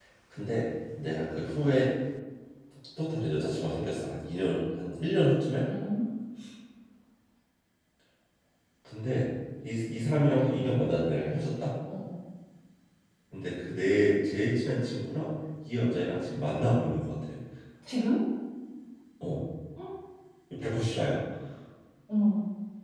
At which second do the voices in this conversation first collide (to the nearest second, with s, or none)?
none